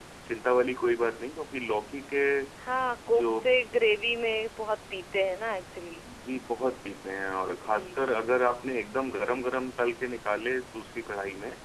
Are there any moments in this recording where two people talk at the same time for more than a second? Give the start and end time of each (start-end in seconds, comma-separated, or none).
none